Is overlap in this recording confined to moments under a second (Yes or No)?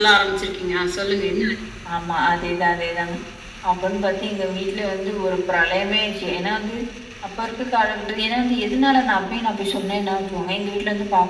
Yes